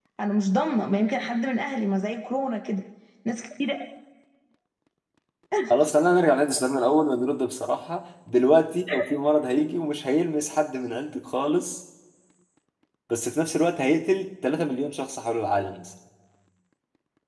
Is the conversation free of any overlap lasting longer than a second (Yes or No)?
Yes